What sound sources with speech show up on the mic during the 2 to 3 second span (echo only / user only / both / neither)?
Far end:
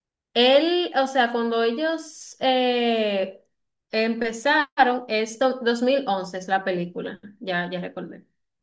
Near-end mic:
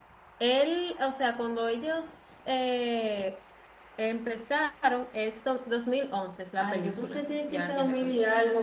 echo only